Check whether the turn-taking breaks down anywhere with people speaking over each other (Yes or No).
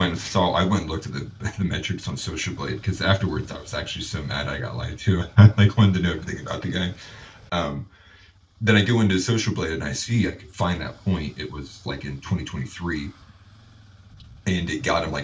No